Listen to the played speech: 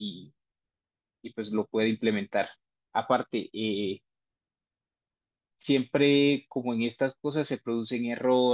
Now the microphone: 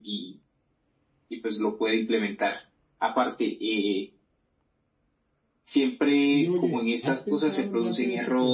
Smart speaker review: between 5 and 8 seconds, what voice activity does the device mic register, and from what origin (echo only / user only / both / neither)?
both